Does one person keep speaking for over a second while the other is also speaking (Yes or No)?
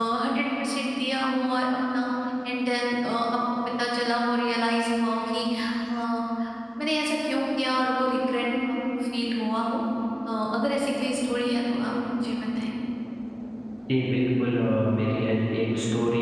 No